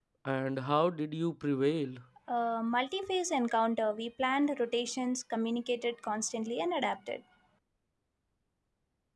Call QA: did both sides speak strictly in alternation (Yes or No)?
Yes